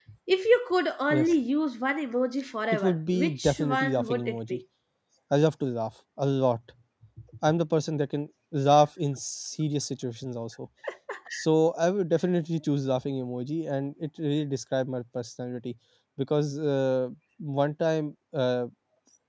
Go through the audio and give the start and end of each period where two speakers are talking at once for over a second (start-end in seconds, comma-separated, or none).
2.7-4.6